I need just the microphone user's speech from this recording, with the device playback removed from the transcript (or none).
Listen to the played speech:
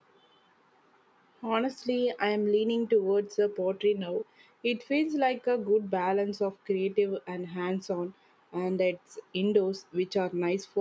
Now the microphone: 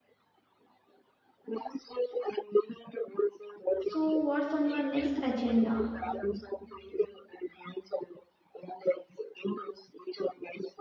So, what's on your next agenda?